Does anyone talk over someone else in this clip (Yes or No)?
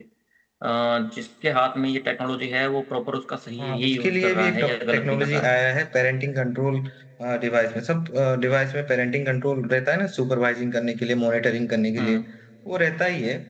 Yes